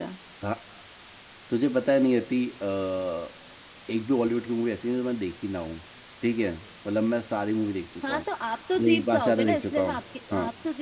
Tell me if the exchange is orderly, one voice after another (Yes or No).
No